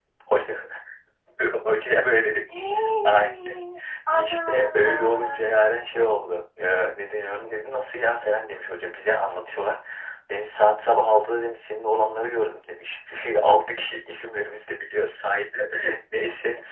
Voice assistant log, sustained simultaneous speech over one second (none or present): present